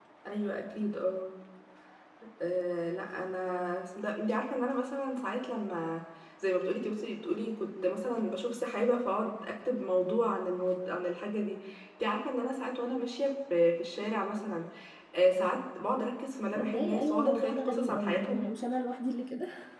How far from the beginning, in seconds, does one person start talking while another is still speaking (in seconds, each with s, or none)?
16.6 s